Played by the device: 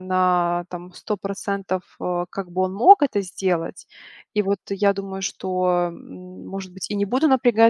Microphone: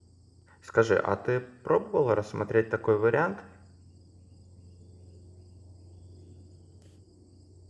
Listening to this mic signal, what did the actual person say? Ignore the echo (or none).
Скажи, а ты пробовала рассмотреть такой вариант,